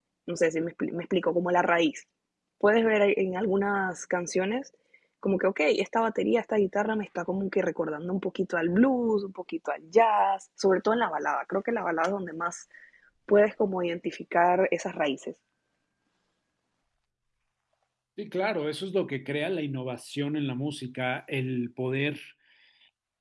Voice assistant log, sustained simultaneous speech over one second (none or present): none